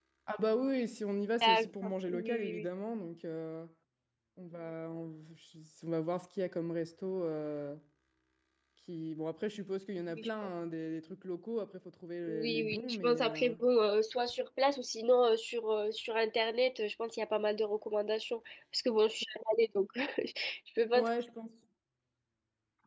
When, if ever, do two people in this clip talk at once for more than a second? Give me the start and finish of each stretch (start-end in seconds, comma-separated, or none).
1.4-2.6, 12.2-13.6